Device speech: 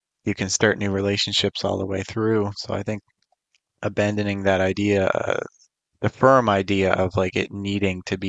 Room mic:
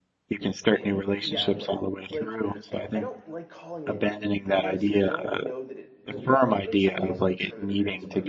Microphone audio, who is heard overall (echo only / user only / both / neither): both